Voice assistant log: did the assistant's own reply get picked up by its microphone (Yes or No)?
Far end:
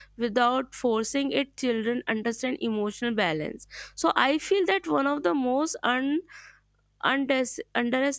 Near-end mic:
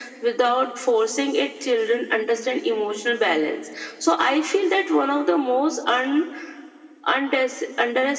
Yes